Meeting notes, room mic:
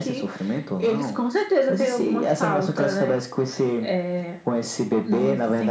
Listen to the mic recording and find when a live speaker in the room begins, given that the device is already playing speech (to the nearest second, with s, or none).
none